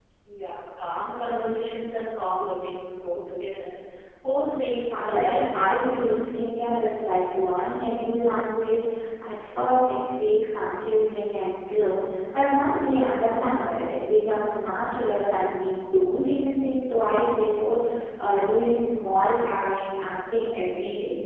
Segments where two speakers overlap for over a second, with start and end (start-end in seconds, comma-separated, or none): 4.8-6.1